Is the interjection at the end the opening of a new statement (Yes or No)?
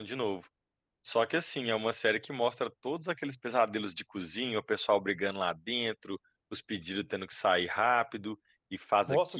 Yes